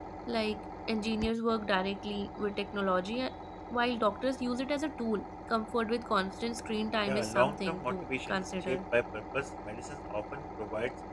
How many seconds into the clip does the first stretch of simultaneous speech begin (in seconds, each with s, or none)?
7.0 s